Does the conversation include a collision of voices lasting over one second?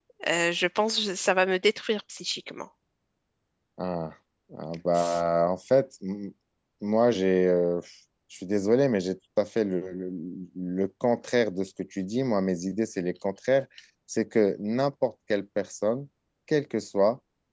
No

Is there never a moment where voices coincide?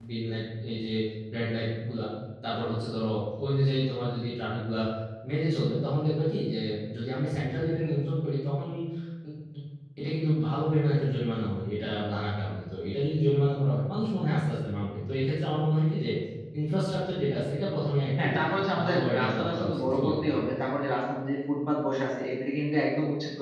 No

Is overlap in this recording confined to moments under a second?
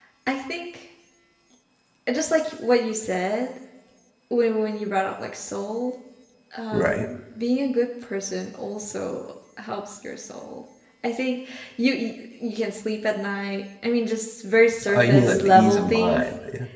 No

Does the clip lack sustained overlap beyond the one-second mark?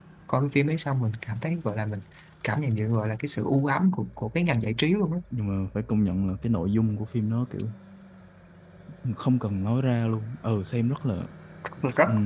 Yes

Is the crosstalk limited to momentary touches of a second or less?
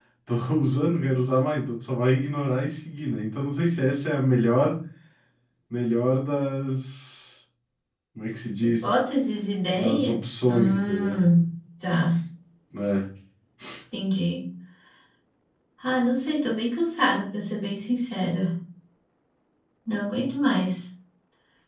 No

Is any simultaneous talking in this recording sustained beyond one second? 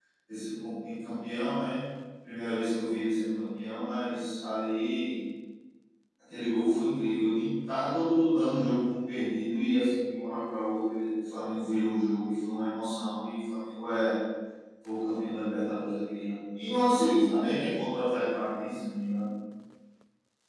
No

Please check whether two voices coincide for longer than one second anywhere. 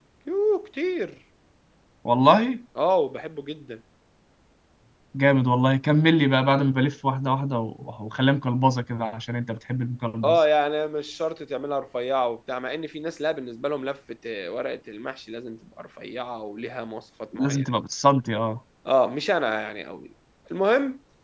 No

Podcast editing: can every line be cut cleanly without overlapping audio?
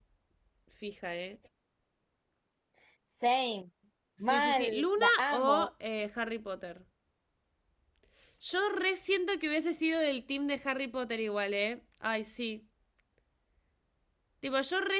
No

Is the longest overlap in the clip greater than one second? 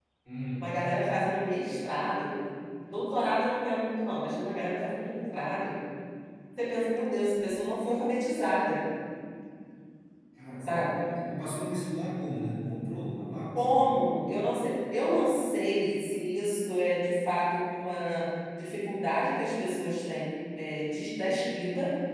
No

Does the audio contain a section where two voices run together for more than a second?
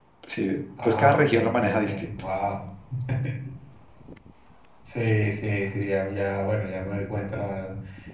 Yes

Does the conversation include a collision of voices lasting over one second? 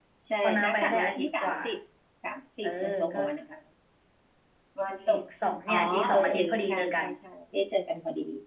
Yes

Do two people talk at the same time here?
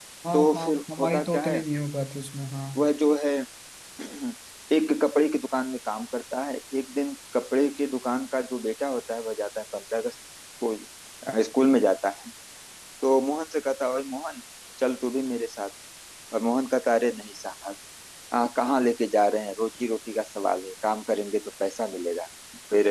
Yes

